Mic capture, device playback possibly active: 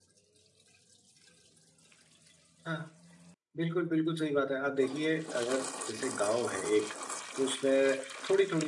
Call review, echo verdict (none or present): none